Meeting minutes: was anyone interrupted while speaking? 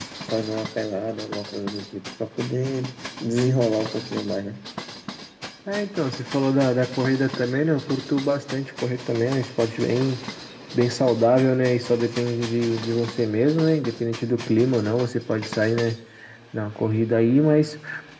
No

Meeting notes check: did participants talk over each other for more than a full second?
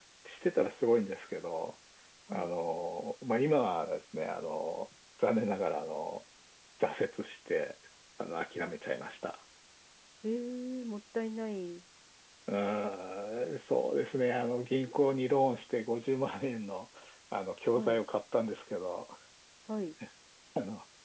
No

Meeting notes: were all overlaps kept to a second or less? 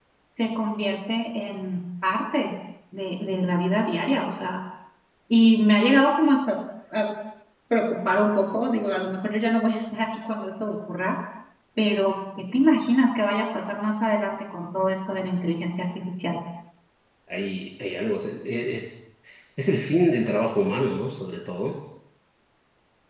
Yes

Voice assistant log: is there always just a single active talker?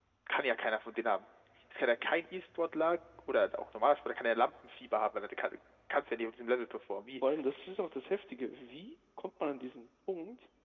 Yes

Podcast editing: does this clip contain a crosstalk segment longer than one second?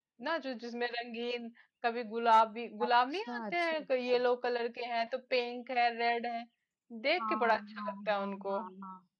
Yes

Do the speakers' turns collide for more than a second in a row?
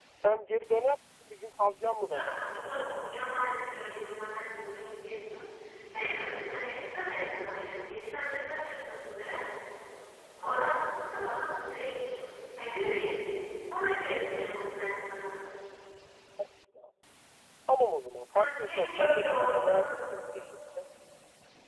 Yes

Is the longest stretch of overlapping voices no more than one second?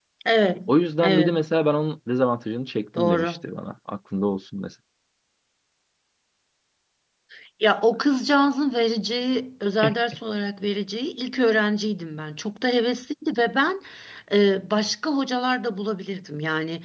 Yes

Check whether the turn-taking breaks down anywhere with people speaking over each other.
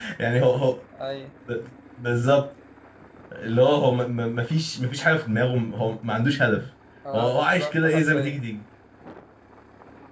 Yes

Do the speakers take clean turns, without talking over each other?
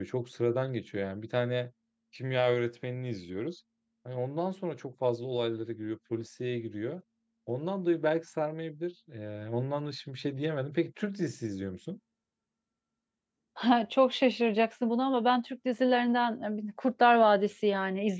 Yes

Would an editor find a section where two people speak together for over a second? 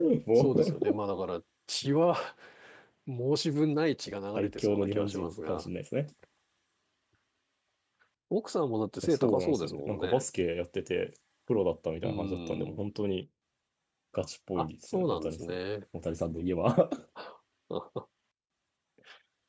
Yes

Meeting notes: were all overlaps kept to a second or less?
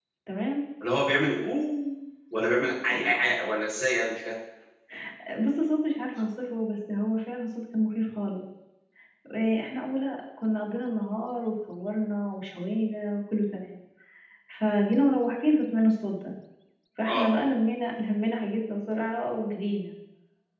Yes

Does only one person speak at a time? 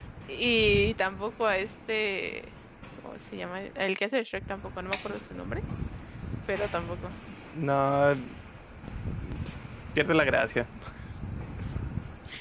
Yes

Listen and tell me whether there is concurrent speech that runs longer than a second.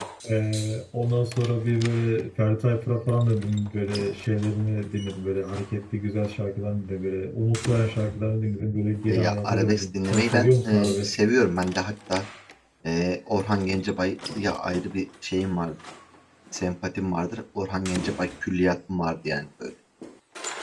Yes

